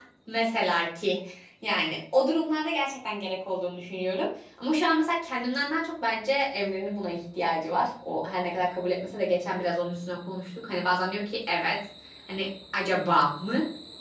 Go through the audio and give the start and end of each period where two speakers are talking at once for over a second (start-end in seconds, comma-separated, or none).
none